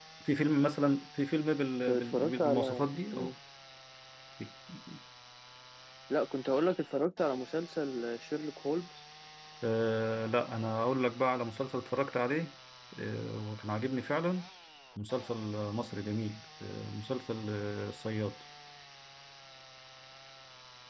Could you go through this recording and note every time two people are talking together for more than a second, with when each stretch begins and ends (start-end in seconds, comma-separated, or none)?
1.9-3.3